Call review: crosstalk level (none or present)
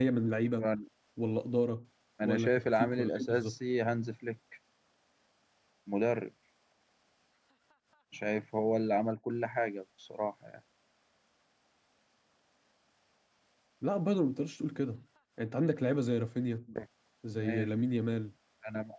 present